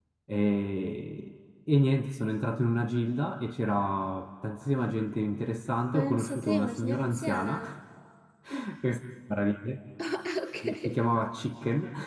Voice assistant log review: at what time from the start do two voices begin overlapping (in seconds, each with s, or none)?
5.9 s